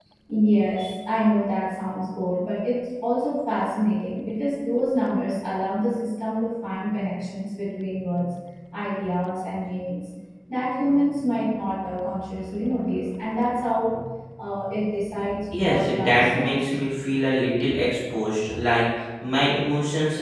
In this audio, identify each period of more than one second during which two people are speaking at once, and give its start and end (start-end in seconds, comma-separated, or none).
15.5-16.8